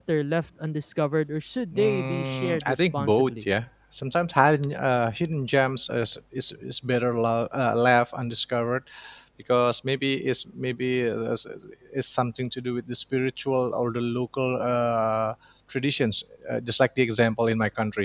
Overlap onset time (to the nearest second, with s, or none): 2 s